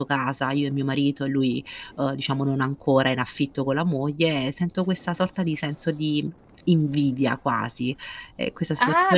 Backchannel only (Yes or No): No